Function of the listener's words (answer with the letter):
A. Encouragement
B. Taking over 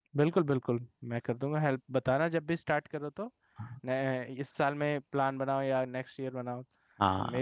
B